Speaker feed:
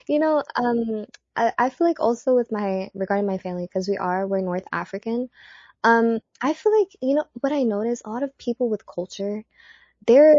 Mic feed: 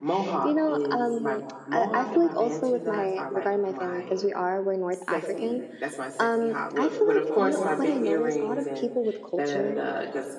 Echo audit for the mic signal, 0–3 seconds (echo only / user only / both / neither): both